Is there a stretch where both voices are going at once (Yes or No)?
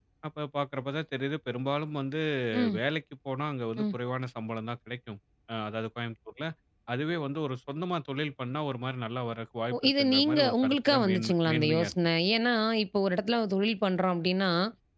Yes